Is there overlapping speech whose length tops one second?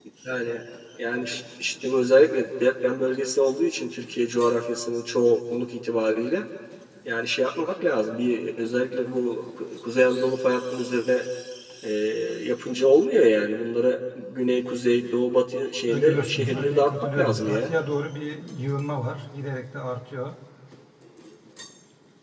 Yes, from 15.9 s

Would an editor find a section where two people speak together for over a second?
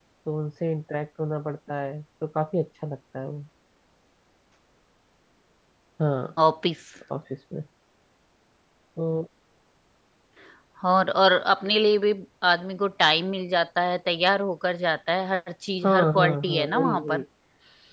Yes, from 15.8 s

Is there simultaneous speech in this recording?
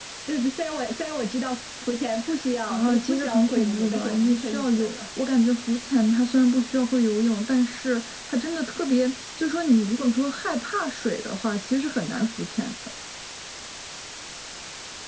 Yes, from 2.7 s

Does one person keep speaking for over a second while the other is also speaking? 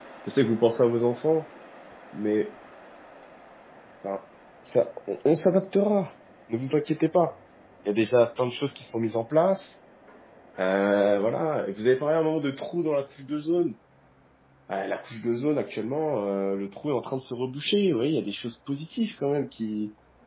No

